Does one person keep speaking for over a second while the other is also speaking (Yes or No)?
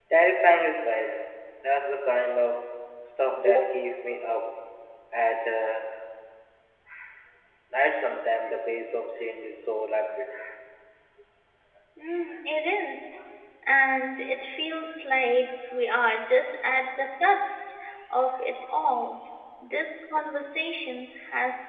No